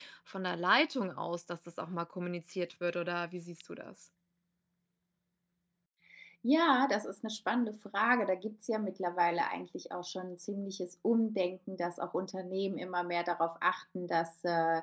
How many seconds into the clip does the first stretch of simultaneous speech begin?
none

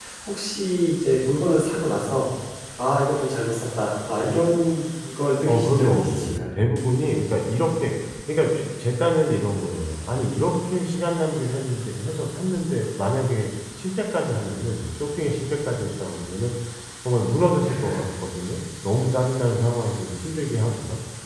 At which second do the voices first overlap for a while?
5.5 s

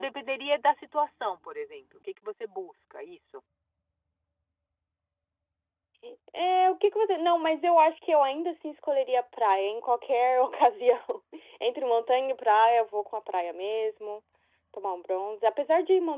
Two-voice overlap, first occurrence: none

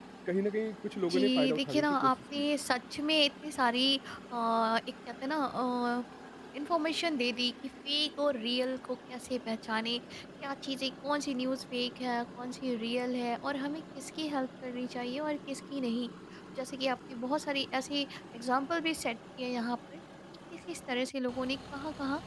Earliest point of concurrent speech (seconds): 1.1 s

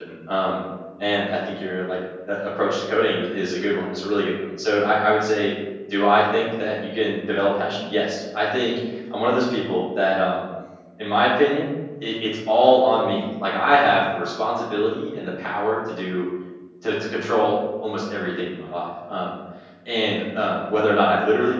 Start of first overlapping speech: none

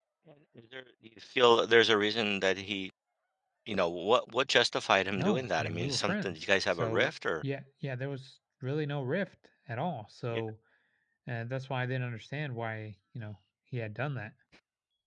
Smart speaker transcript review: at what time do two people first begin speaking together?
5.2 s

